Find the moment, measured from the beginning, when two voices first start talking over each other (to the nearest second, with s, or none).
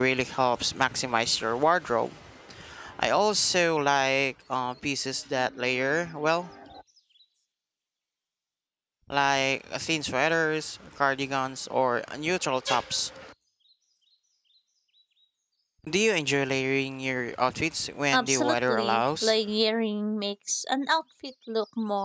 18 s